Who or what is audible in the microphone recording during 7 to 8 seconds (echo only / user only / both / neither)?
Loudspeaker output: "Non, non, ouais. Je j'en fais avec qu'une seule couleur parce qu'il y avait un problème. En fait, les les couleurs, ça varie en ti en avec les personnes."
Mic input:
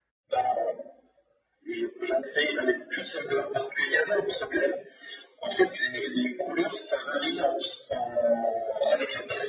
echo only